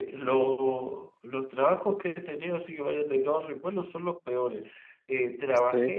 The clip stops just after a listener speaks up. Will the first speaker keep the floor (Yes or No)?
Yes